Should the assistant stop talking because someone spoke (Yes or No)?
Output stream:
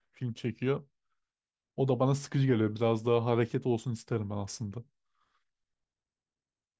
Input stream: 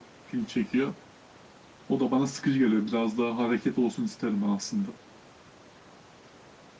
No